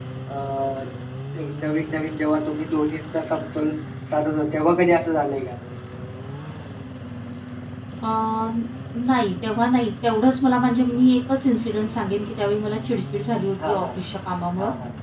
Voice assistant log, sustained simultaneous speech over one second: none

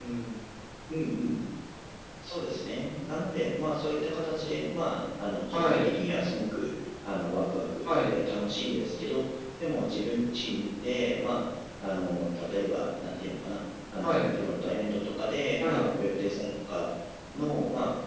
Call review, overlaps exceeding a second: none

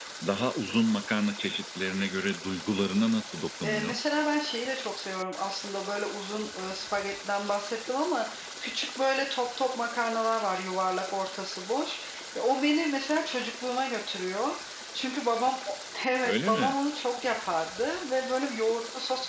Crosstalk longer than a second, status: none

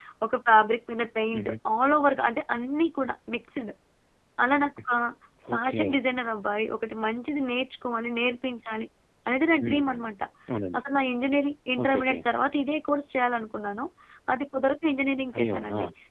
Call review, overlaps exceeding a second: none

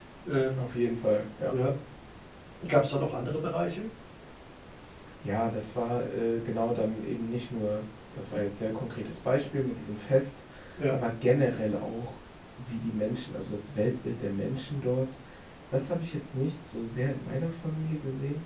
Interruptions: none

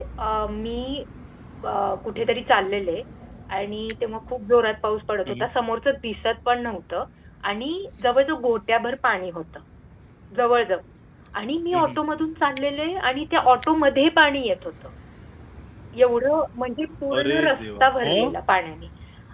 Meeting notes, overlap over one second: present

